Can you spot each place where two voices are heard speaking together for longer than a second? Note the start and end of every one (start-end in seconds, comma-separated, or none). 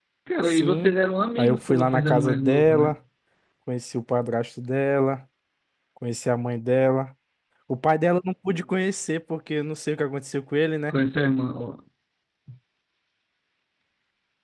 1.4-3.0